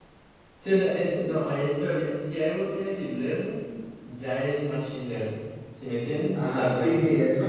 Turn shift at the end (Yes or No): Yes